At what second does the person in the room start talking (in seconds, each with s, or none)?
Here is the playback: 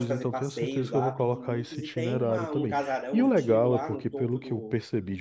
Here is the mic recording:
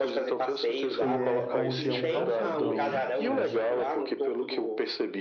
0.8 s